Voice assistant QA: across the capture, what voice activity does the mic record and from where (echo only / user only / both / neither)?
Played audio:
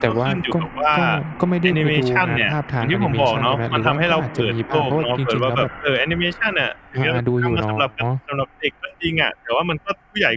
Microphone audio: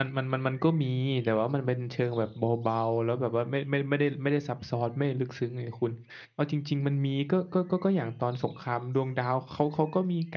user only